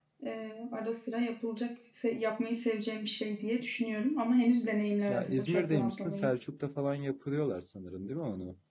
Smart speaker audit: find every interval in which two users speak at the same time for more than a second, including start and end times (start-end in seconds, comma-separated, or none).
5.1-6.3